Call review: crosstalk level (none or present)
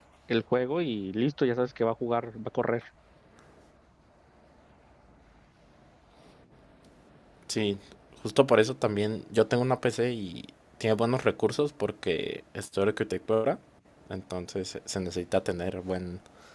none